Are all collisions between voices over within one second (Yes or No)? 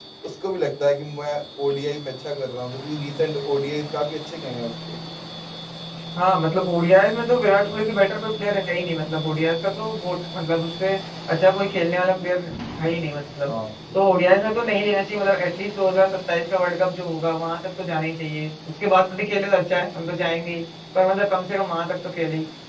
Yes